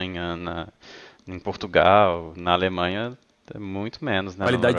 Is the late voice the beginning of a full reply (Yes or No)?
Yes